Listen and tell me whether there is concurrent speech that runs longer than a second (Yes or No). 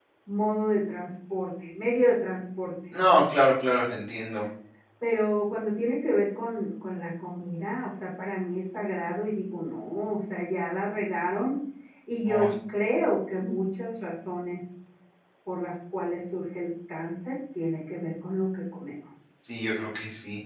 No